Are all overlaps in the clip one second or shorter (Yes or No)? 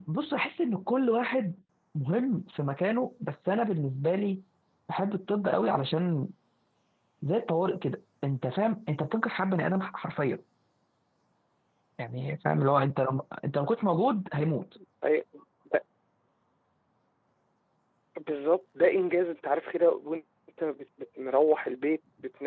Yes